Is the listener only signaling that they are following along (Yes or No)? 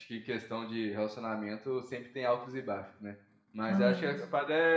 Yes